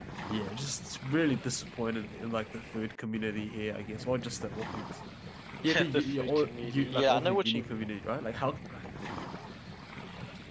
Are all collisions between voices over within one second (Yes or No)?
No